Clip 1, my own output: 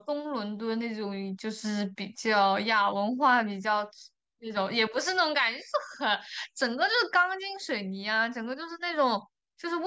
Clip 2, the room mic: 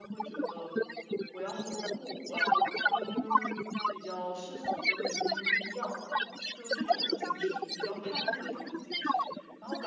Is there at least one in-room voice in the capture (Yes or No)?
Yes